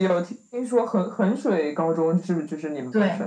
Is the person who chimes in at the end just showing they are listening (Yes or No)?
No